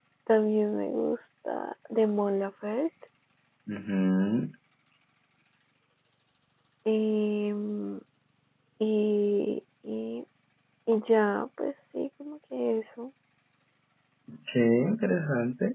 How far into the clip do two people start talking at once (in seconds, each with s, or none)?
none